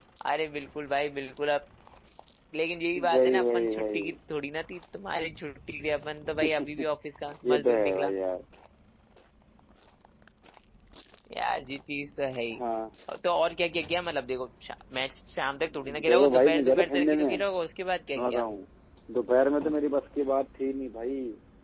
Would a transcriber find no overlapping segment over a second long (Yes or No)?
No